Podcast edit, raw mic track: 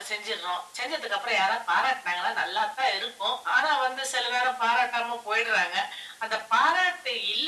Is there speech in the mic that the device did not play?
No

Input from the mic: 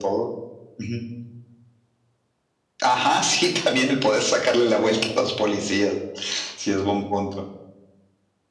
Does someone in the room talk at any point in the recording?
No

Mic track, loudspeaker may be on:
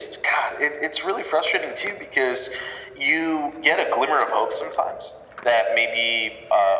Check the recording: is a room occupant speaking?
No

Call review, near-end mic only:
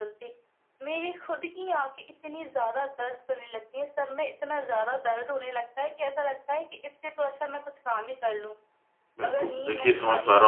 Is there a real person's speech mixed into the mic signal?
Yes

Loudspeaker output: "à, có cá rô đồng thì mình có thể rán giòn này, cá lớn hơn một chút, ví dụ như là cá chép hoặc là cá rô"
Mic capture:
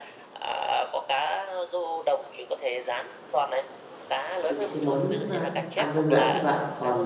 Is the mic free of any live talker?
No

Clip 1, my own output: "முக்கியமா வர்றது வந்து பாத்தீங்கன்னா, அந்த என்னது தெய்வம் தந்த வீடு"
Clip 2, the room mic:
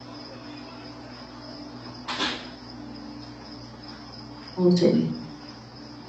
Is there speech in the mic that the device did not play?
Yes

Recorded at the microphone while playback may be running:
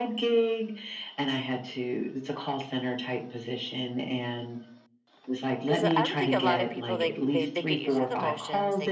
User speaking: Yes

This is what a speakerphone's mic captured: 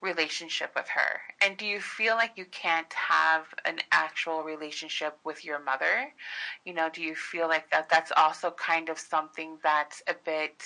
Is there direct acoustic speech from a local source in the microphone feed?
No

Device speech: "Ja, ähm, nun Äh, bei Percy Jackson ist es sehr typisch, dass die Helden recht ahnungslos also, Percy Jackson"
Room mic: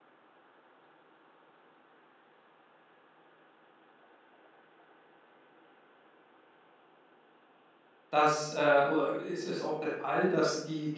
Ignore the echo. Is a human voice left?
Yes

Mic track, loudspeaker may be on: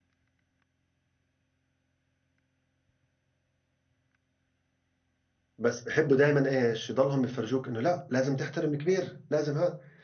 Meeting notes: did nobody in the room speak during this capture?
No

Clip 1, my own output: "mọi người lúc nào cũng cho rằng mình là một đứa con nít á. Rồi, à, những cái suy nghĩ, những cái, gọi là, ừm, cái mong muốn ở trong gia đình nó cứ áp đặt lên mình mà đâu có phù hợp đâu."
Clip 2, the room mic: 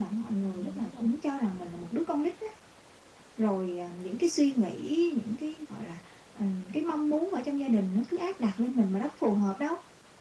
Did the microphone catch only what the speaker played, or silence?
No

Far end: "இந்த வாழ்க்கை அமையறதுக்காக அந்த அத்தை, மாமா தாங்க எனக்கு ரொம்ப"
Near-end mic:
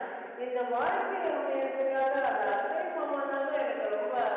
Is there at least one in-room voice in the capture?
No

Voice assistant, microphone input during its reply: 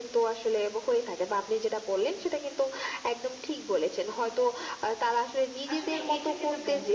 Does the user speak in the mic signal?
Yes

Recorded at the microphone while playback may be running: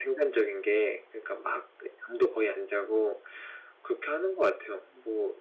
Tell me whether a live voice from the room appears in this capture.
Yes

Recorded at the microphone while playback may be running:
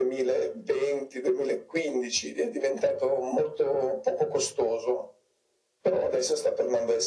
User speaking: No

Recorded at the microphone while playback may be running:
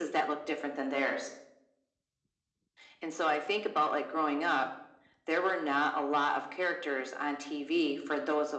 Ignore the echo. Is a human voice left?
No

